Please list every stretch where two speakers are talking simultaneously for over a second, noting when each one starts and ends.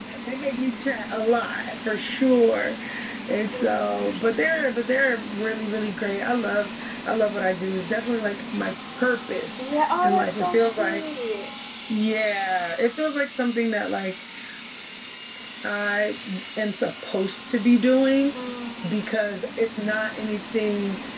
9.6-11.0

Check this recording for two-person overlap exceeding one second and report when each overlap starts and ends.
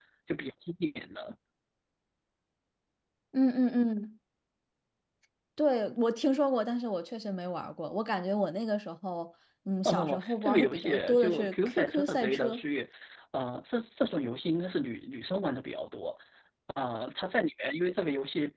9.8-12.6

